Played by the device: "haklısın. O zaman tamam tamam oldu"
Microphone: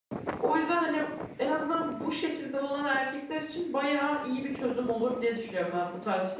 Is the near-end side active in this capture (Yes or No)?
Yes